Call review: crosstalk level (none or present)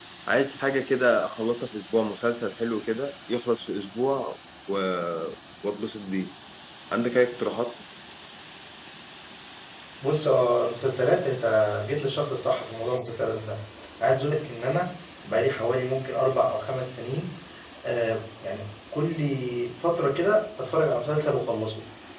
none